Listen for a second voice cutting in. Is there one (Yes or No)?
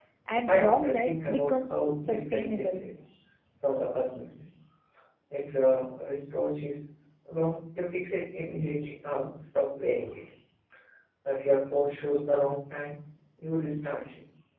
Yes